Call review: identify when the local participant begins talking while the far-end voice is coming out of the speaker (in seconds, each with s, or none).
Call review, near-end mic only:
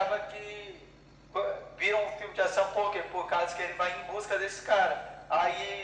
none